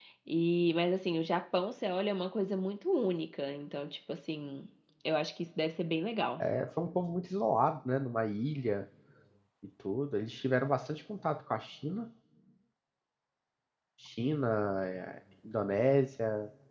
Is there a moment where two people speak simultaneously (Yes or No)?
No